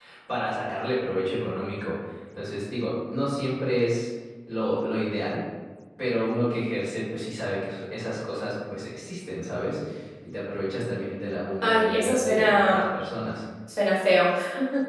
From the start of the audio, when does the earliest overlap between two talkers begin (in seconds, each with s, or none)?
11.6 s